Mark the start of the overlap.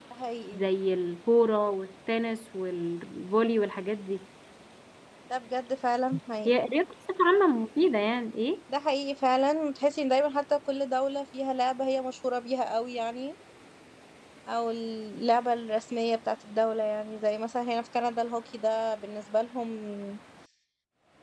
none

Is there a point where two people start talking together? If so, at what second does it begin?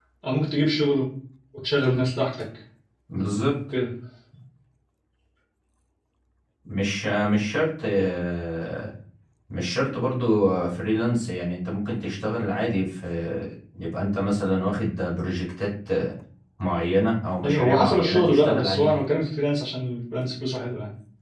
17 s

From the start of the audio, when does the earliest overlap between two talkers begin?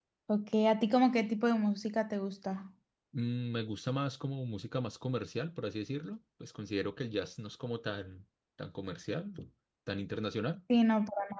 none

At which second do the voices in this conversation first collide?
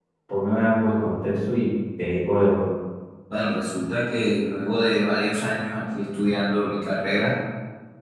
none

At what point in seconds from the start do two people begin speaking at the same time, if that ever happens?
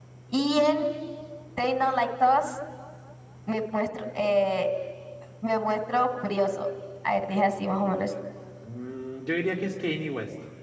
none

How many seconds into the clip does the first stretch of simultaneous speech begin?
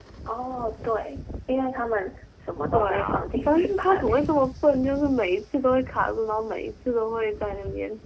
3 s

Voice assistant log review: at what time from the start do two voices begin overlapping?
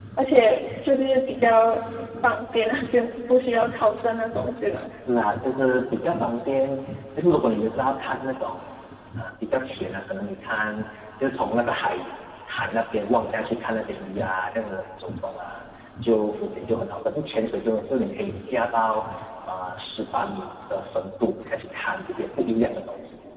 none

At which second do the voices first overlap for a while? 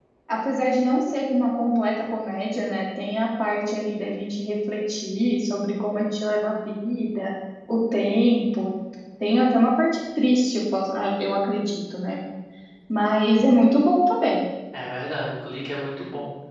none

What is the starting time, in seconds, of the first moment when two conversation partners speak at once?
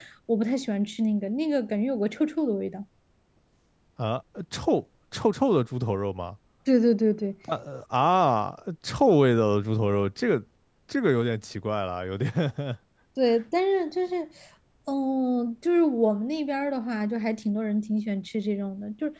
none

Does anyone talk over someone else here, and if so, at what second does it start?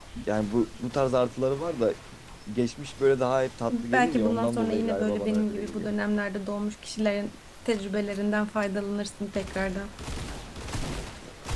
4 s

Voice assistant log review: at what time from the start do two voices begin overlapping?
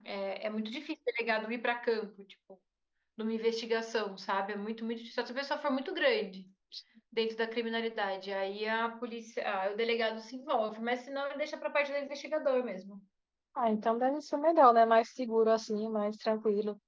none

